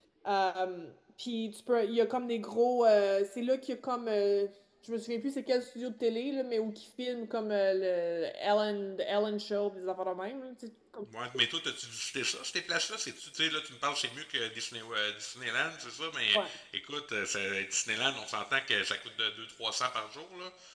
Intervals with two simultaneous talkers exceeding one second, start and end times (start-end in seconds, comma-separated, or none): none